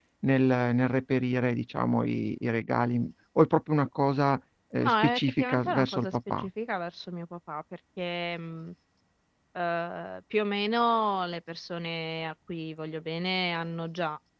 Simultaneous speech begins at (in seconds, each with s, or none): 4.8 s